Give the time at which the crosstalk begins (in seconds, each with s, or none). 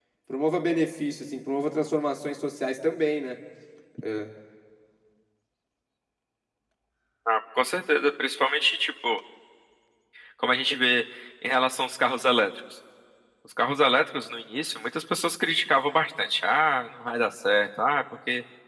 none